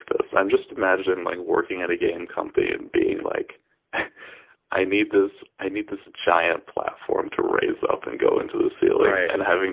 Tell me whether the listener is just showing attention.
Yes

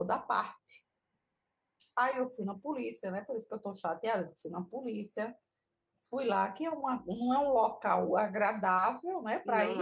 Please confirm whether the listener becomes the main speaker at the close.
No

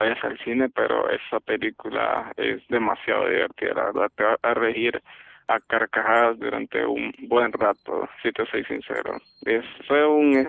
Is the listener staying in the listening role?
Yes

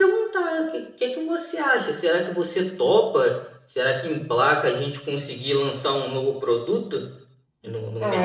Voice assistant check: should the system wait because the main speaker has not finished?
No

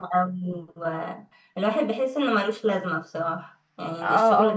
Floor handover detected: Yes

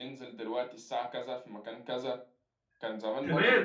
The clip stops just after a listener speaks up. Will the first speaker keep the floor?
No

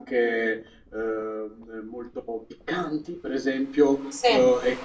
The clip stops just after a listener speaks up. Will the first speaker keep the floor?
Yes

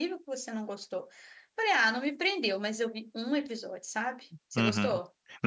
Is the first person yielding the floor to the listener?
Yes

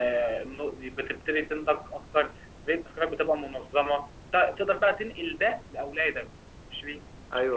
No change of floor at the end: No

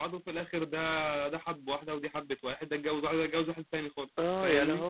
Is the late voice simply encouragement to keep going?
No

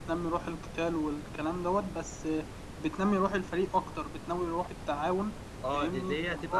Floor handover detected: Yes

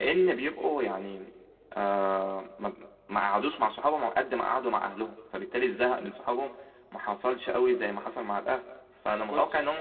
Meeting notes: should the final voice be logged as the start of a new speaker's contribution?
No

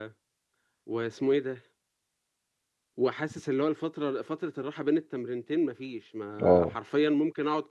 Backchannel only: Yes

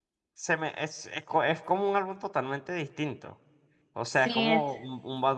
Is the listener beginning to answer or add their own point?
No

